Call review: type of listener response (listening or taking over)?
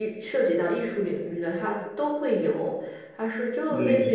listening